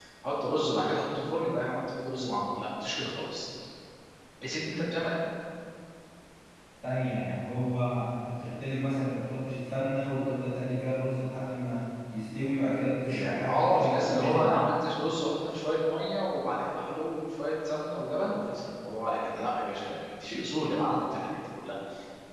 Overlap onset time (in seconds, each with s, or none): 13.1 s